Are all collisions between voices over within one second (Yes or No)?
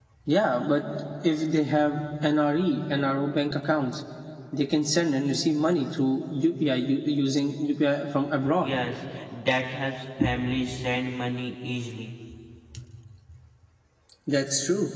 Yes